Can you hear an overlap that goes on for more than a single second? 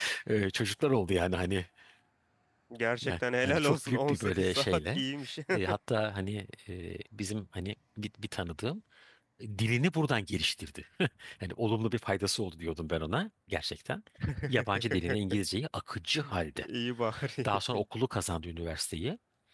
Yes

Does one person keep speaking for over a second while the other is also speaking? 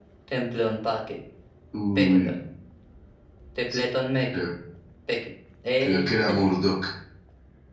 No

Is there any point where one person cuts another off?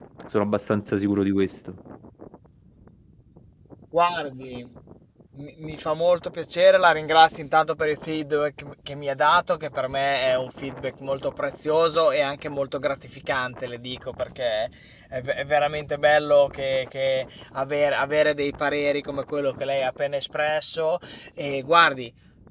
No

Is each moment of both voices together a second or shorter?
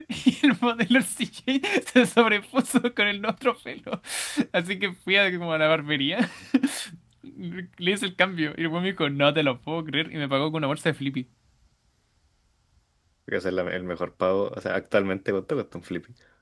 Yes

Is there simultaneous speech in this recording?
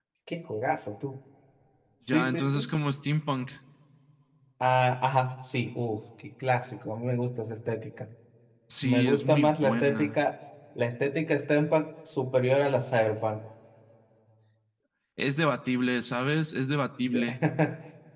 Yes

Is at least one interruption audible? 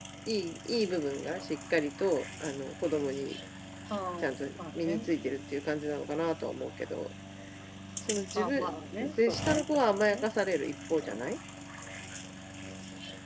Yes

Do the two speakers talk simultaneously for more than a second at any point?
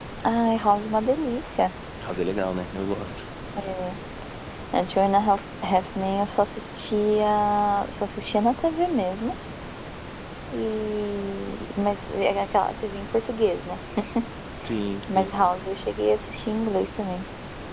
No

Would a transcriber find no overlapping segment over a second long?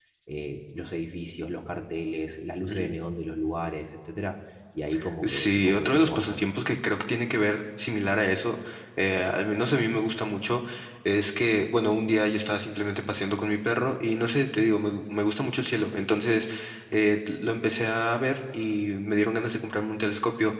No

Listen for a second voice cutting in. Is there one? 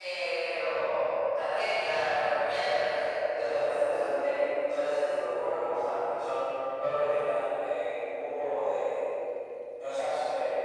No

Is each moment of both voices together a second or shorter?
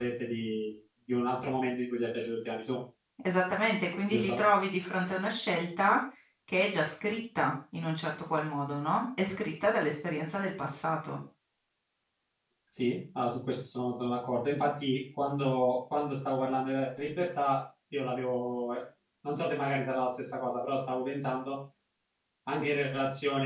Yes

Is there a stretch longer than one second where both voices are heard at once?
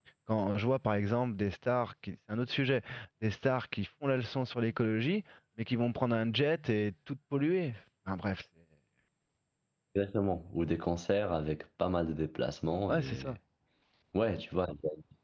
No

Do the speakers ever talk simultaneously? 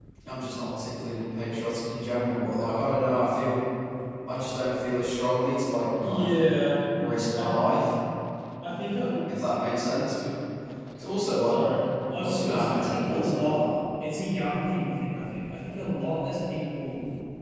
Yes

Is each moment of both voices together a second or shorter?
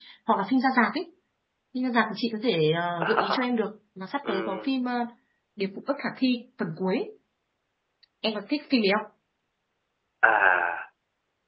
Yes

